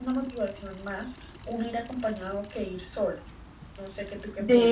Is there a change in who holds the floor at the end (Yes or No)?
Yes